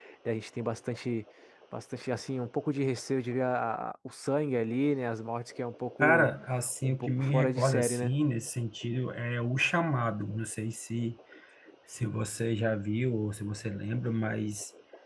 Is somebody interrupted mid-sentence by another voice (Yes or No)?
Yes